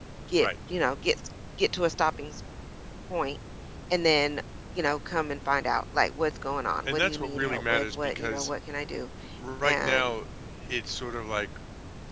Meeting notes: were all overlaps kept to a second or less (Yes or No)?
No